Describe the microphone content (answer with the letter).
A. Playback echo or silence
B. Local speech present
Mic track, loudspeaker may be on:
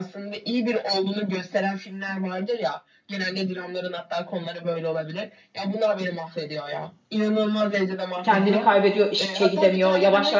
B